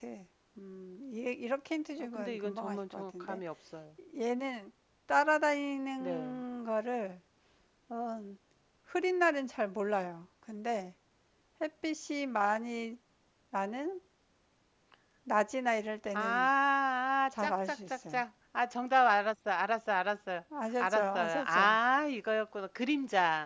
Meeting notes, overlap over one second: present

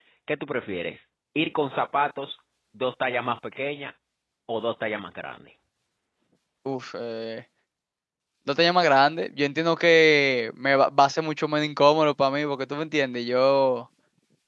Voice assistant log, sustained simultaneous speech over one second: none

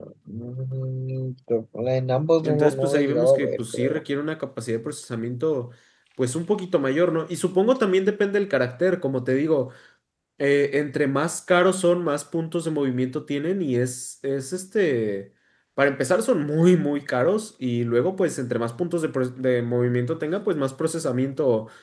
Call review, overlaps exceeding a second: present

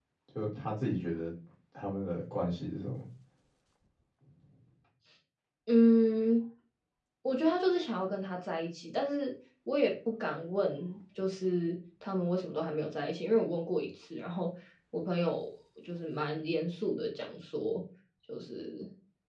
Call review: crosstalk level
none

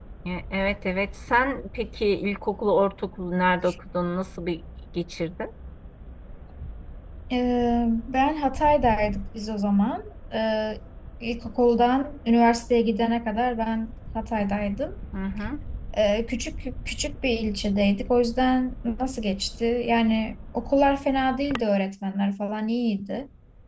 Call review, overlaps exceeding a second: none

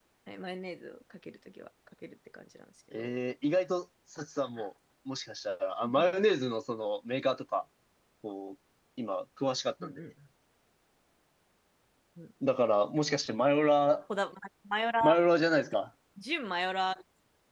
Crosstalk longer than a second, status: none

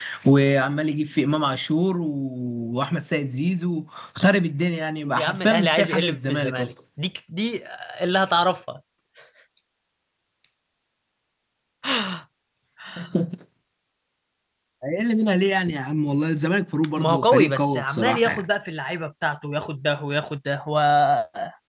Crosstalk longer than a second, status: present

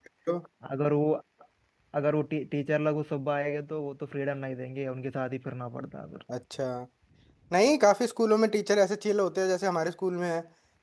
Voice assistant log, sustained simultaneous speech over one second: none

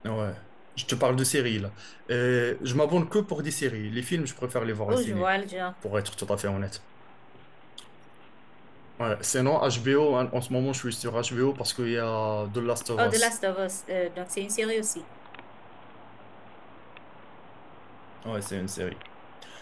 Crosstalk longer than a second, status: none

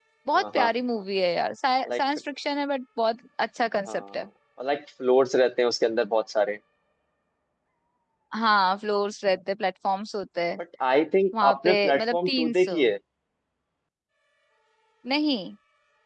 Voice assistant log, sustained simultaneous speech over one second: present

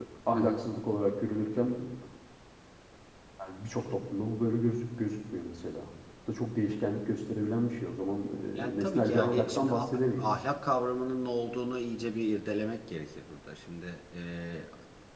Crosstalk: present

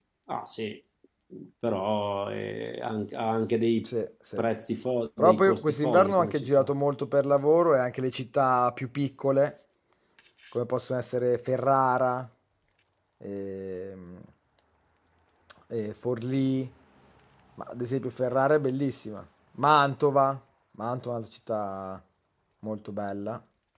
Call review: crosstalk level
present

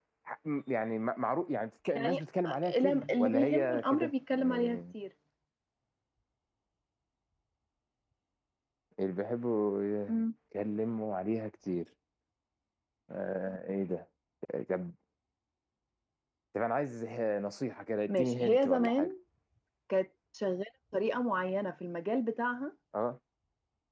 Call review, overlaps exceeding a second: present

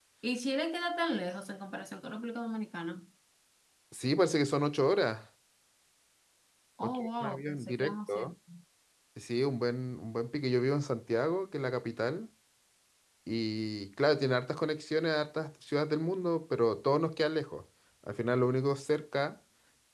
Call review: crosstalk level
present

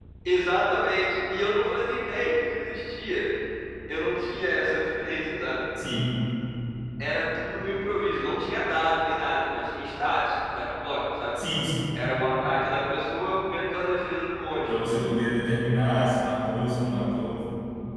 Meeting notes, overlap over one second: none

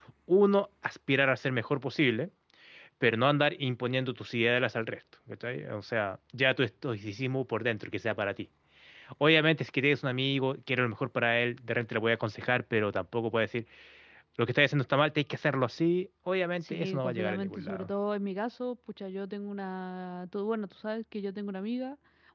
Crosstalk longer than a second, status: present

